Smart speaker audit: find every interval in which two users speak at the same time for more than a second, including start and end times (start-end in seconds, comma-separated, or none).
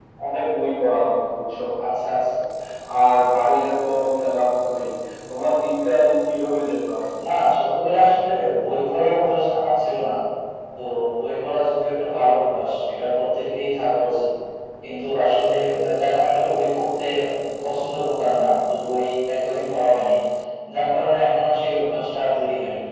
none